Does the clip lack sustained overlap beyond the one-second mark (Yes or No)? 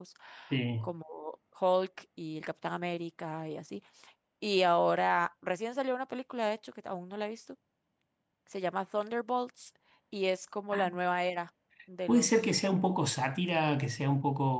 Yes